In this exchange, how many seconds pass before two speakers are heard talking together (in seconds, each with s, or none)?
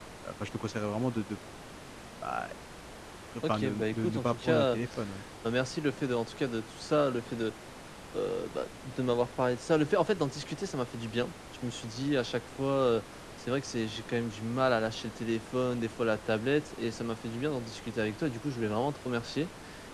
3.5 s